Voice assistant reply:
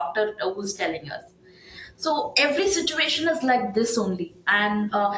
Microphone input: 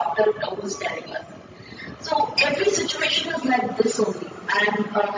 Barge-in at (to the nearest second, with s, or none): none